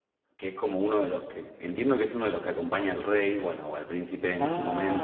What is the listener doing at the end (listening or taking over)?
taking over